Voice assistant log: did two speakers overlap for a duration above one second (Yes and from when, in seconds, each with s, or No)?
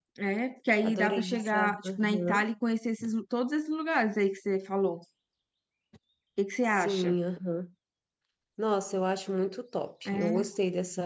Yes, from 0.8 s